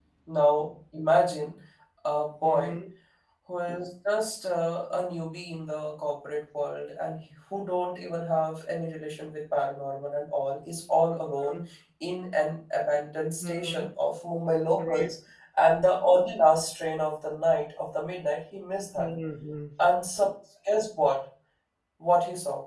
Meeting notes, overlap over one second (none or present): none